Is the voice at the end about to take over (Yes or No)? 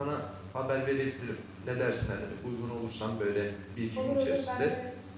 Yes